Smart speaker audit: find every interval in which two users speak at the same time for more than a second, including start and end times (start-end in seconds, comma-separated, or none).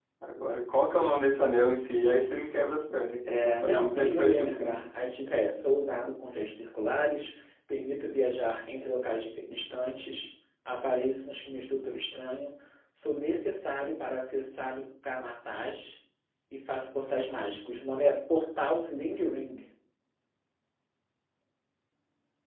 3.3-4.8